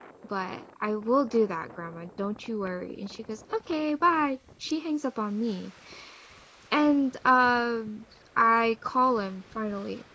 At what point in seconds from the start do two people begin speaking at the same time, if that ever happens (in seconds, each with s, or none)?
none